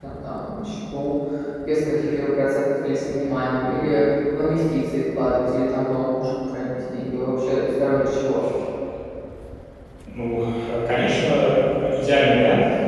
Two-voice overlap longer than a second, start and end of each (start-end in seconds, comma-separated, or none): none